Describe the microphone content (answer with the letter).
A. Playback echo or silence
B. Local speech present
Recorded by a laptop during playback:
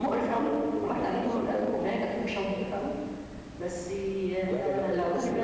B